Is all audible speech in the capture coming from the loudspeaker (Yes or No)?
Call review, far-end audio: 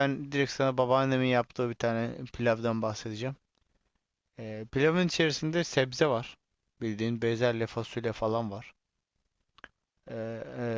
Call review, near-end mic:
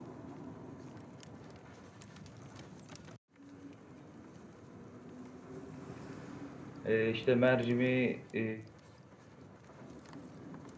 No